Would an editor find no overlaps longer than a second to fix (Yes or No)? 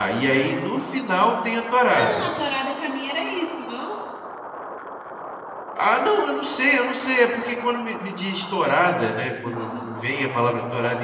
Yes